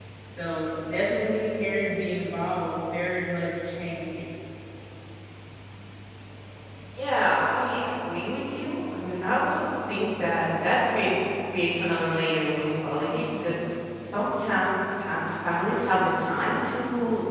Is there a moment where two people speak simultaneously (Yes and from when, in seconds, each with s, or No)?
No